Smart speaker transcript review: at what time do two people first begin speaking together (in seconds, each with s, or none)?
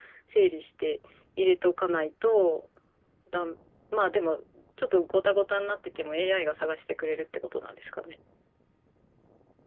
none